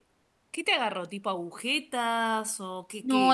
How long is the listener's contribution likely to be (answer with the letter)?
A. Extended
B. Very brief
A